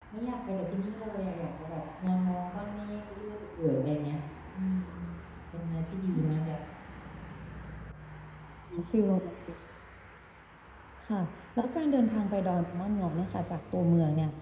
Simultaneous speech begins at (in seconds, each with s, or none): none